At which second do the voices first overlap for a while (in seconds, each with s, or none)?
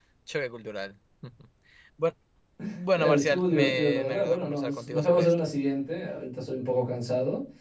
2.9 s